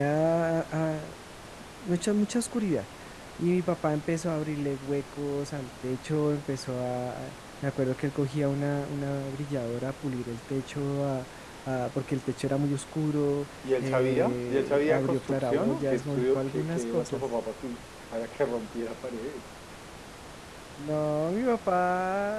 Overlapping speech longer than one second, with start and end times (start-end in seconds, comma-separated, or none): 13.8-17.2